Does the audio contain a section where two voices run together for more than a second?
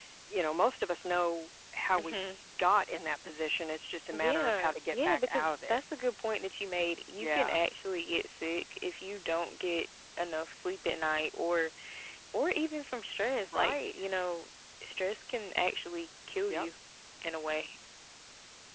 Yes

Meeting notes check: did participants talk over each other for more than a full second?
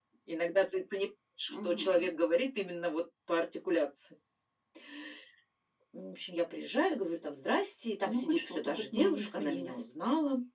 Yes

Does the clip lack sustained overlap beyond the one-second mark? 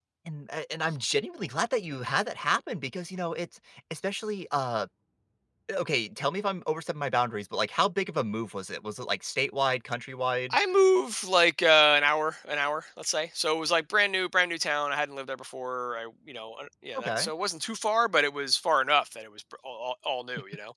Yes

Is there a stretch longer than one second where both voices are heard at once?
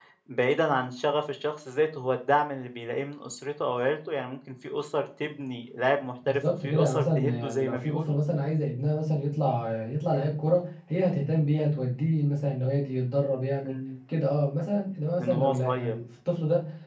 Yes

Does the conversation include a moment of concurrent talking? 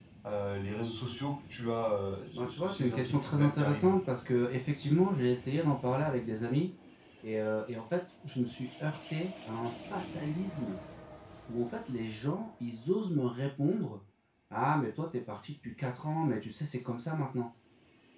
Yes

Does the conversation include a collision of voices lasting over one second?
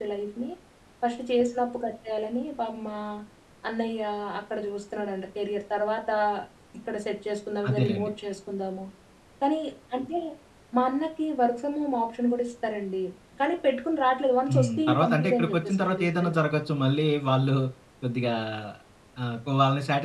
Yes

